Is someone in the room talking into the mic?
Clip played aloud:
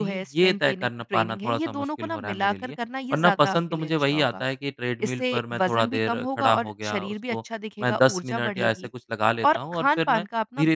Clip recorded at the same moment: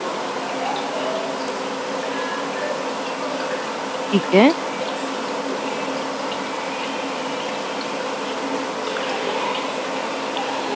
Yes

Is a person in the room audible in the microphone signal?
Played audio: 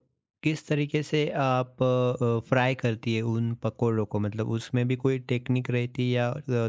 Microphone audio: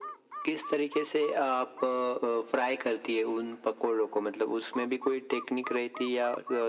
No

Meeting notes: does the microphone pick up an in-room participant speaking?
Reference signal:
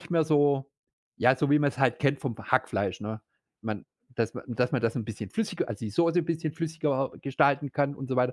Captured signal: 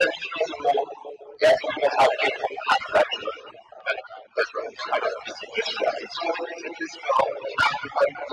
No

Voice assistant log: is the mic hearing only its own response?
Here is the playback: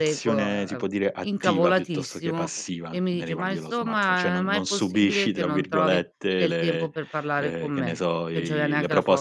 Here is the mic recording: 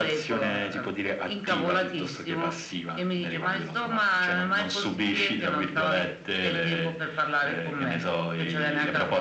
Yes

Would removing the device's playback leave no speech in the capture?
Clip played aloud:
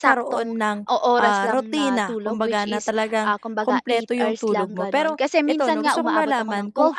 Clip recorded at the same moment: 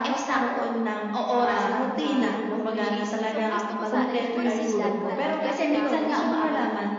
No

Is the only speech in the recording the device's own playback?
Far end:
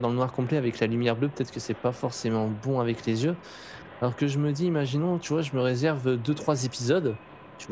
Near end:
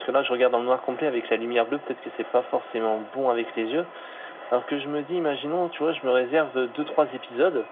Yes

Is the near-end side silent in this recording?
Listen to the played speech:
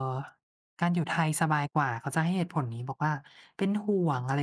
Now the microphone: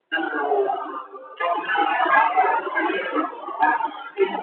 Yes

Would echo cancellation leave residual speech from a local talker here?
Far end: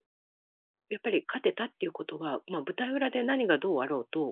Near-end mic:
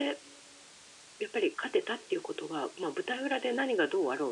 No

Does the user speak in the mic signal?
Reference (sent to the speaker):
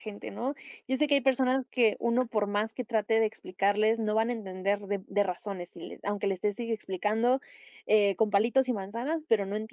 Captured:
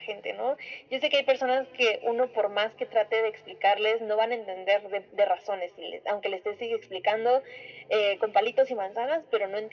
No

